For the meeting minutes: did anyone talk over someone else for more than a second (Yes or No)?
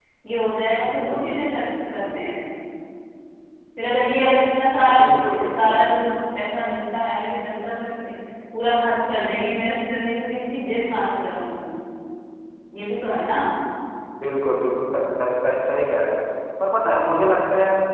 No